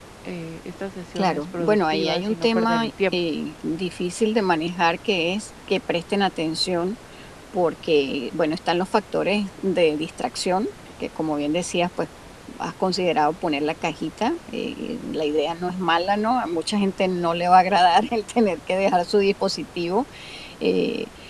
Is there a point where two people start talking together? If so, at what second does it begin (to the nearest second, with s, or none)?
1 s